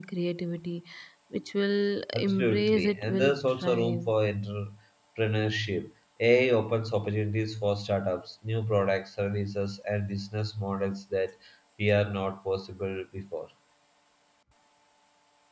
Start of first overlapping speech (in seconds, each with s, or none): 2.1 s